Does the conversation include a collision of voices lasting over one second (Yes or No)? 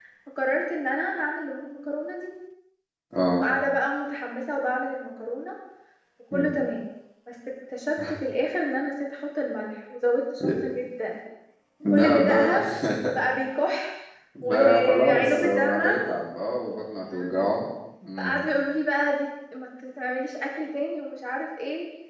Yes